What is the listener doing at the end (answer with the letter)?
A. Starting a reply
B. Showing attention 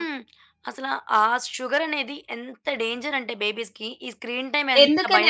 A